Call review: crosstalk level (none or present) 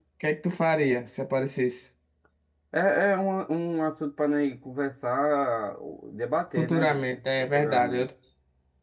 present